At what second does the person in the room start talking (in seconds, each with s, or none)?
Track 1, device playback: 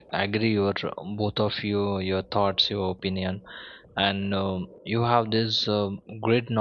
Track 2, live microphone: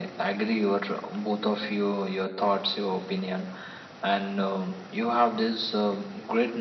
none